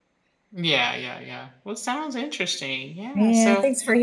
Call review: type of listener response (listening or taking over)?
taking over